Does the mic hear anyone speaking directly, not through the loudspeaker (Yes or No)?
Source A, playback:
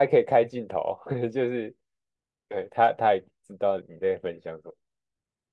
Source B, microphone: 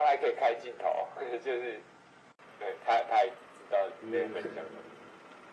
Yes